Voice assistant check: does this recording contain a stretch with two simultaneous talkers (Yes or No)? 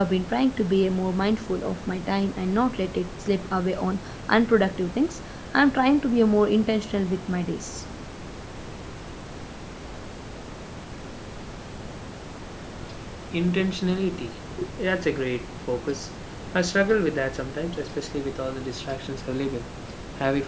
No